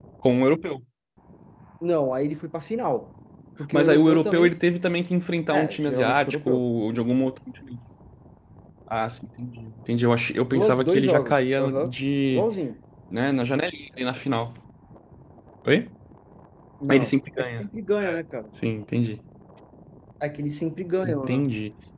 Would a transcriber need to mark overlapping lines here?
Yes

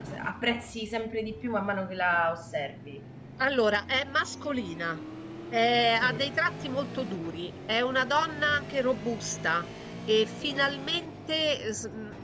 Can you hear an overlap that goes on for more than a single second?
No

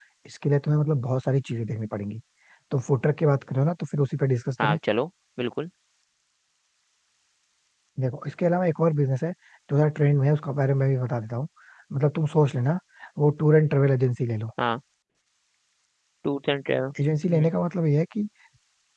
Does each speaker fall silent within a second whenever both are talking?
Yes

